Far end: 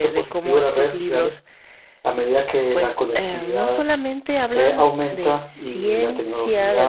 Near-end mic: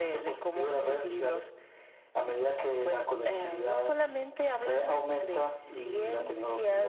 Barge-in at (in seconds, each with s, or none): none